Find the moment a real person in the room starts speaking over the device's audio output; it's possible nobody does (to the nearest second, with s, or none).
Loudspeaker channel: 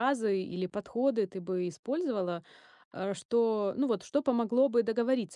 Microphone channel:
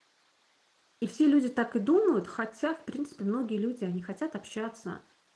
1 s